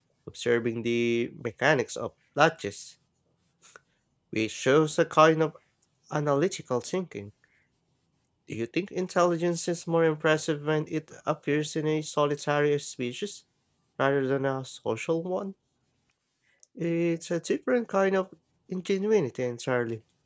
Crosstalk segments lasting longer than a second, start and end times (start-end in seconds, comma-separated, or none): none